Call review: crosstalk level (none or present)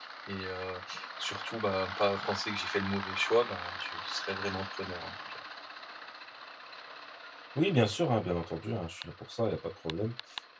none